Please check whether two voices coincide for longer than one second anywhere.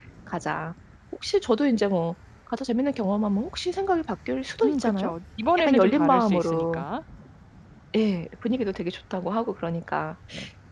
Yes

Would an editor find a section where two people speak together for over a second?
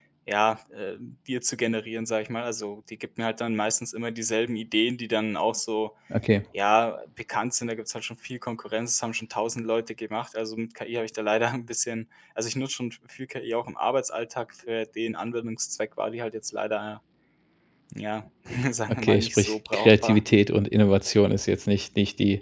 Yes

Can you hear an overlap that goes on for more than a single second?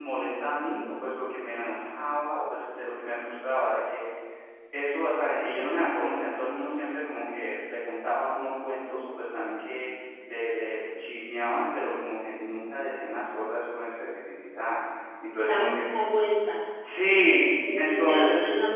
Yes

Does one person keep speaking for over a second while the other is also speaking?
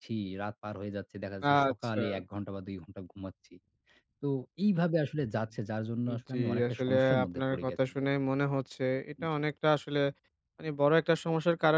Yes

